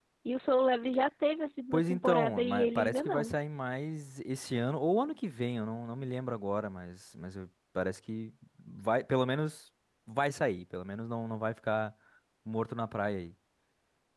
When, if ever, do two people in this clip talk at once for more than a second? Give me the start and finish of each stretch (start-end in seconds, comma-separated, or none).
1.7-3.4